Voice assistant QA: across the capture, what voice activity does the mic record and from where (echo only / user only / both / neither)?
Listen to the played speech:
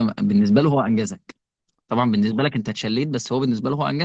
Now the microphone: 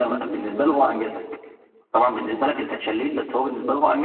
echo only